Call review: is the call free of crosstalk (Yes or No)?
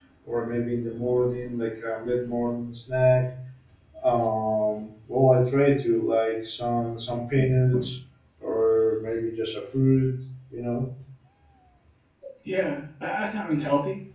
Yes